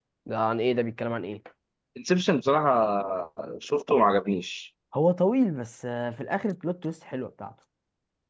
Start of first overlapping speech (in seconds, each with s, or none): none